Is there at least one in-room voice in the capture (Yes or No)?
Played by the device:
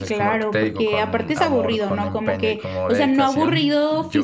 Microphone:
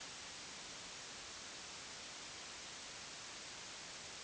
No